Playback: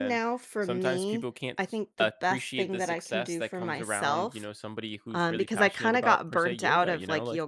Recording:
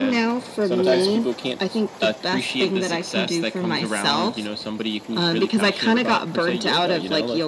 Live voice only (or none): Okay.